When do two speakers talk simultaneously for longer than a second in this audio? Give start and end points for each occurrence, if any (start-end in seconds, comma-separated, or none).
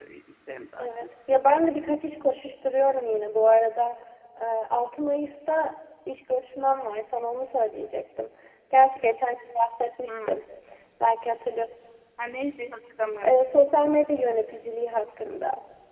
none